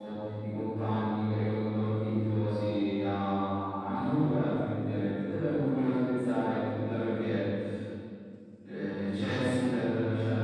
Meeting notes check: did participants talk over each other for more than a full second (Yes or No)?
No